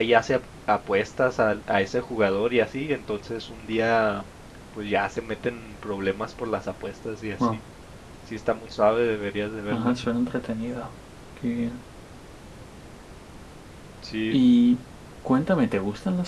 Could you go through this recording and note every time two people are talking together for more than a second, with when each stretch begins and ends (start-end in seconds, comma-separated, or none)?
none